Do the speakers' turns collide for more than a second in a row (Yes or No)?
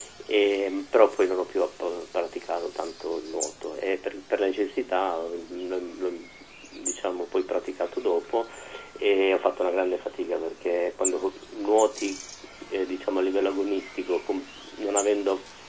No